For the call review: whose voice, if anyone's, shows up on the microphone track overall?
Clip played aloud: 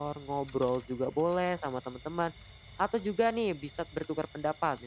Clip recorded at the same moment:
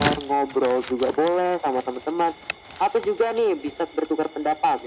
echo only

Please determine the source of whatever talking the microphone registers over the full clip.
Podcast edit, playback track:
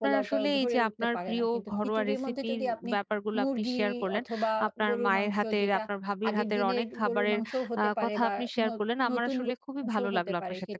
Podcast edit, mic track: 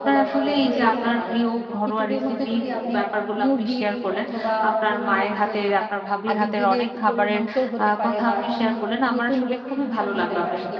both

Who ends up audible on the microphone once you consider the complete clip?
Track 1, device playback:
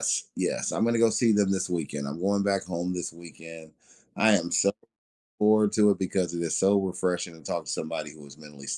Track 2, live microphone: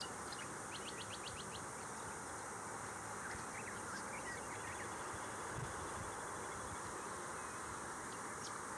neither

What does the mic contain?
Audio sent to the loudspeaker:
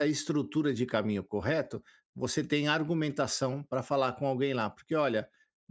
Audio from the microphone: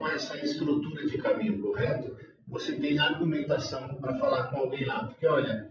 echo only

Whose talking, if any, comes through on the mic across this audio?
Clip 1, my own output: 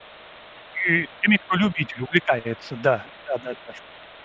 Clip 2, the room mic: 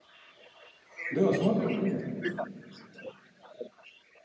both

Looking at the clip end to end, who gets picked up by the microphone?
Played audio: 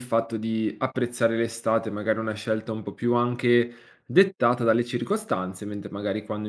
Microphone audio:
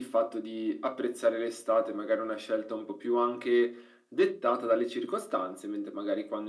echo only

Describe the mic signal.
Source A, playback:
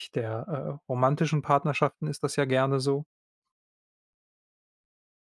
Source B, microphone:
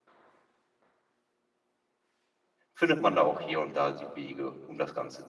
user only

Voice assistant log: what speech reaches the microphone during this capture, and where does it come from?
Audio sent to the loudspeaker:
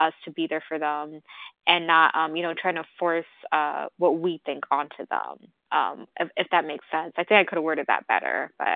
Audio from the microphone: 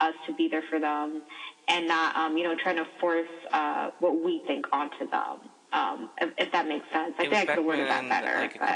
both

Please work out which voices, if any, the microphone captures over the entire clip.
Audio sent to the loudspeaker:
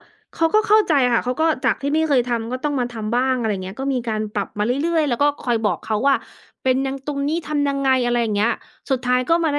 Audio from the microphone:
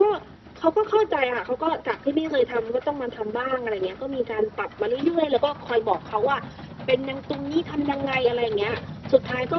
echo only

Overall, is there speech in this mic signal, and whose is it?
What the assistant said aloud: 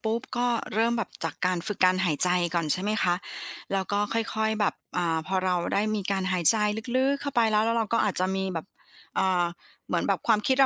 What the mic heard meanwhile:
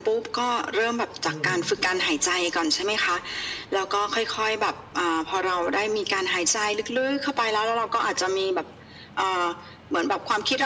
both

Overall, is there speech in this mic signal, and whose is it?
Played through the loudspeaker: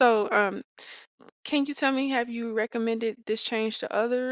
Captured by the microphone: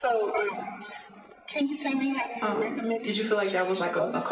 both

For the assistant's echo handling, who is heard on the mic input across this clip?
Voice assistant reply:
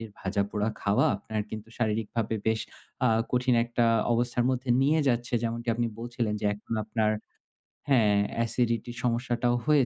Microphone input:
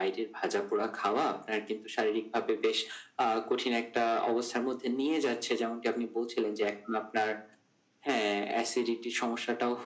echo only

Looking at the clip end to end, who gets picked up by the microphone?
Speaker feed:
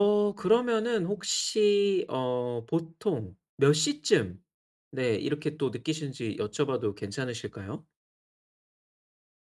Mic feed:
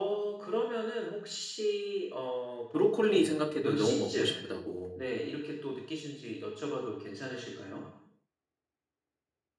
both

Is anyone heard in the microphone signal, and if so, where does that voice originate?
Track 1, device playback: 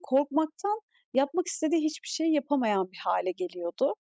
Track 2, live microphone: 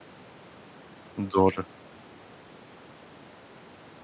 user only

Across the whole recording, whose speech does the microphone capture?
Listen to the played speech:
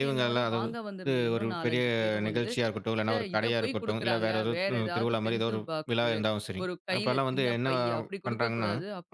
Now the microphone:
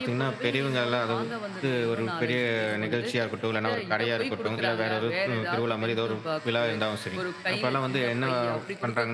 echo only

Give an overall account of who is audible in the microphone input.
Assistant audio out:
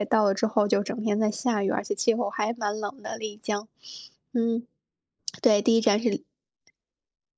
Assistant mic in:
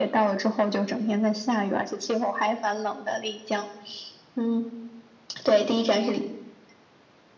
echo only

